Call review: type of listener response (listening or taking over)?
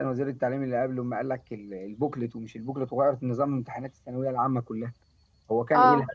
listening